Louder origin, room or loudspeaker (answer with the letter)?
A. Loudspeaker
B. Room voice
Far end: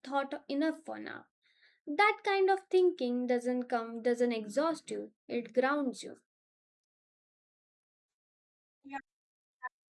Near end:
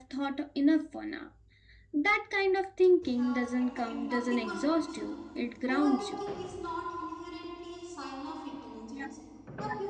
A